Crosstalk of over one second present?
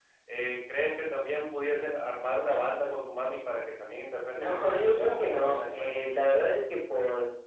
Yes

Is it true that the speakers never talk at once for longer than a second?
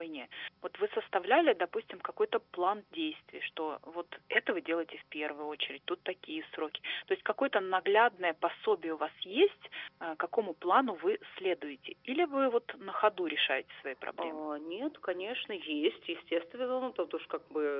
Yes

